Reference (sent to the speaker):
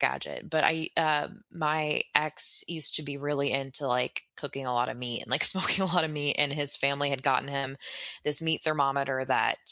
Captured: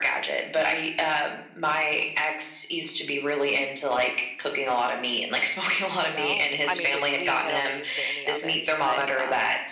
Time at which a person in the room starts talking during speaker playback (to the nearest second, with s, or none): 6 s